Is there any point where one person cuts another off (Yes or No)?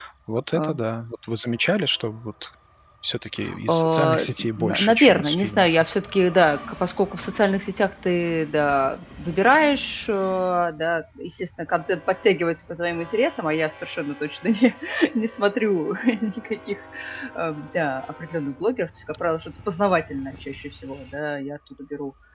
Yes